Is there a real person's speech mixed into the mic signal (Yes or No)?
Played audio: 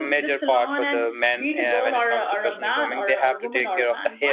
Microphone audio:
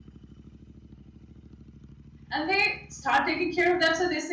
Yes